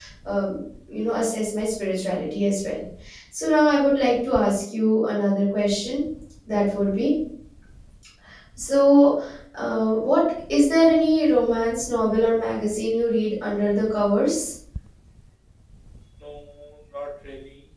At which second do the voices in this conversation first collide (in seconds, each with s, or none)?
none